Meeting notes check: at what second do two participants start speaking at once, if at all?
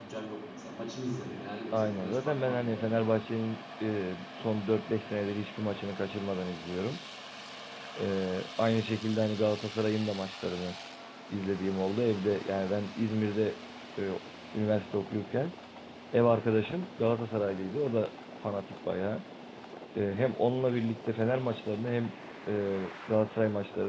2 s

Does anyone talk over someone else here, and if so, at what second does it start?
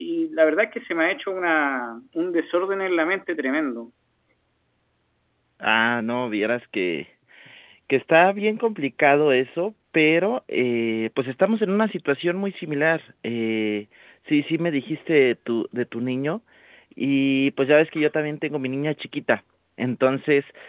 none

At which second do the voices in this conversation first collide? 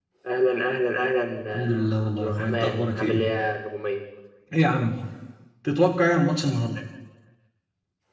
2 s

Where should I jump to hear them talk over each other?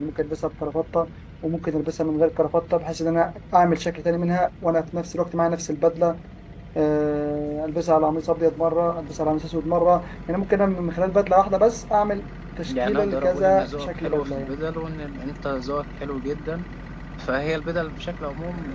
13 s

